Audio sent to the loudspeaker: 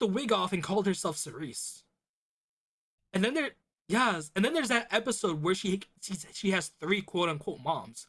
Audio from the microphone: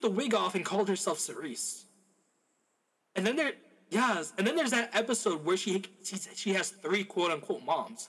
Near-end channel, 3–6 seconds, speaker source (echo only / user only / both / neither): echo only